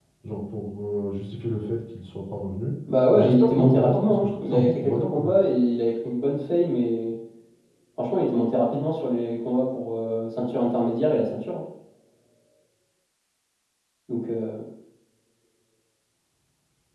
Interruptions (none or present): present